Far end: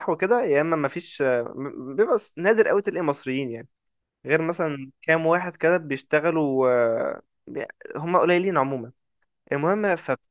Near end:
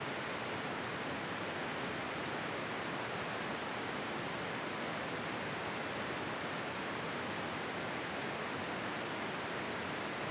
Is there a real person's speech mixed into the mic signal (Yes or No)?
No